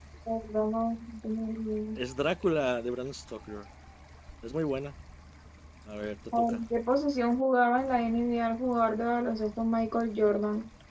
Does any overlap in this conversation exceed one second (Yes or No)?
No